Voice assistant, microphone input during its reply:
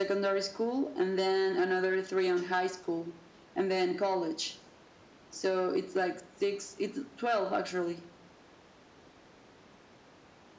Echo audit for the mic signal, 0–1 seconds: echo only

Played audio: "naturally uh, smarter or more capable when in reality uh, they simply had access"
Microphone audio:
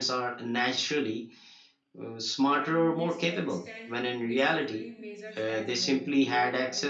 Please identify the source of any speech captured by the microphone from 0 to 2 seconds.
echo only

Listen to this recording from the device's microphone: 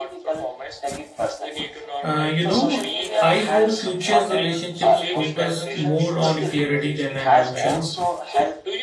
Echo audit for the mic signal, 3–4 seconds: both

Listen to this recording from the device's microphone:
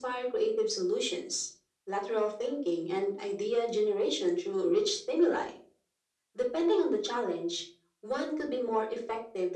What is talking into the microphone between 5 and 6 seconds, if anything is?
echo only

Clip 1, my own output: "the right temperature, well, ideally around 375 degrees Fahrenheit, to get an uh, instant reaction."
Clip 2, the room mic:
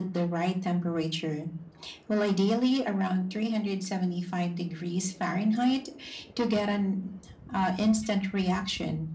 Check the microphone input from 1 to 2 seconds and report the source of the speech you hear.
echo only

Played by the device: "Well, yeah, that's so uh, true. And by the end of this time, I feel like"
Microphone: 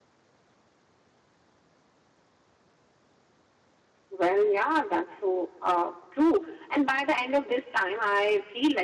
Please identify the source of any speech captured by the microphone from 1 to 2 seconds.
neither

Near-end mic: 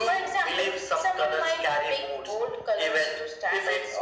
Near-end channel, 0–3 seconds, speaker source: echo only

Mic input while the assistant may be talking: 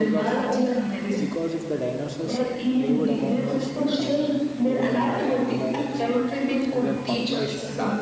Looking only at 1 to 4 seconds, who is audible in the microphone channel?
both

